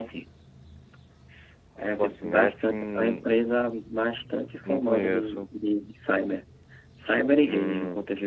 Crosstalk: present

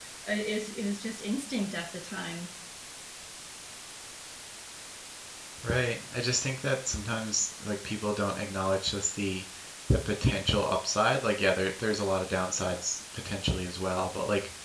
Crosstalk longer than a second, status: none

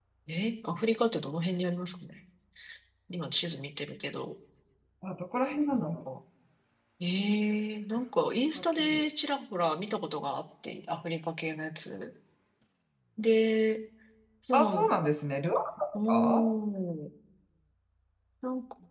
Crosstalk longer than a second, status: none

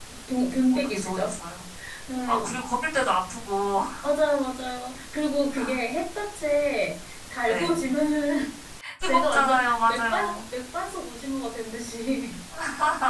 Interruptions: present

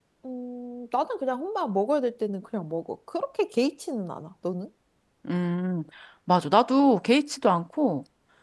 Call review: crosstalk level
none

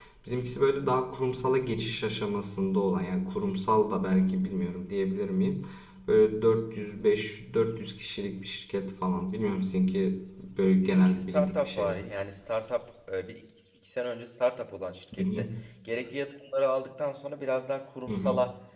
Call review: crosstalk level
present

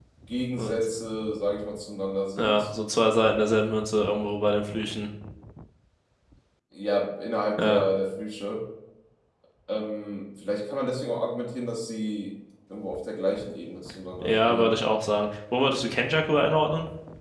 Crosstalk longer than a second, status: none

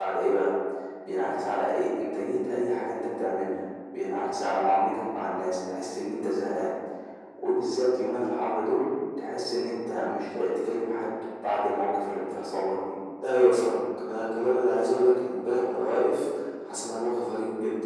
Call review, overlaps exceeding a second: none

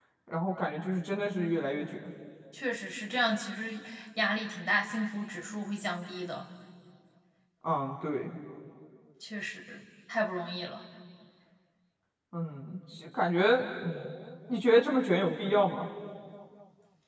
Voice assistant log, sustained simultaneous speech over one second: none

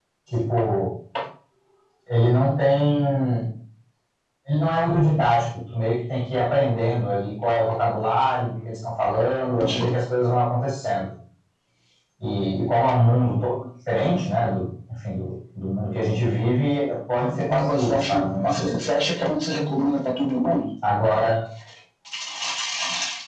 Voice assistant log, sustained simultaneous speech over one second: present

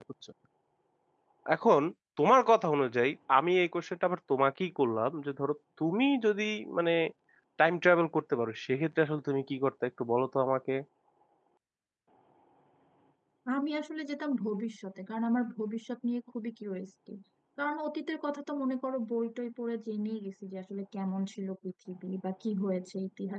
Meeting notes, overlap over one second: none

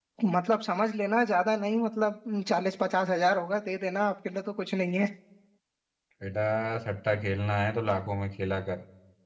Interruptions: none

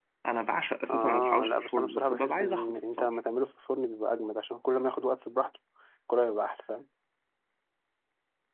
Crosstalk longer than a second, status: present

